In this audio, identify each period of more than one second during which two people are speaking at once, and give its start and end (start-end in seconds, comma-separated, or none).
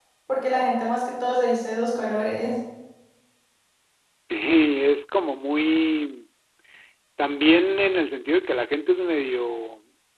none